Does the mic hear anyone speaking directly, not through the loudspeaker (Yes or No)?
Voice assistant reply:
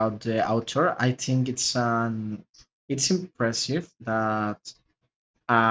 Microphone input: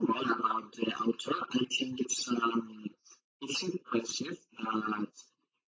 No